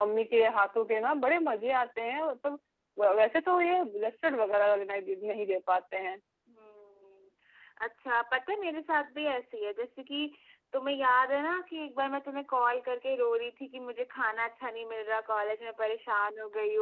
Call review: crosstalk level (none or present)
none